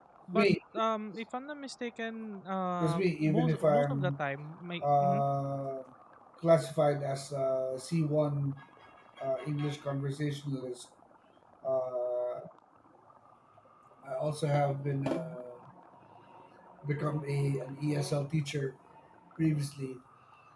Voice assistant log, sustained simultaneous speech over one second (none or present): present